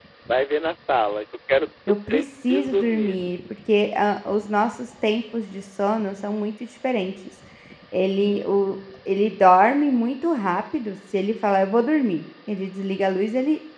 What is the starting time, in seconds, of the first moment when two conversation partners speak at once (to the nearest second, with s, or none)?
2 s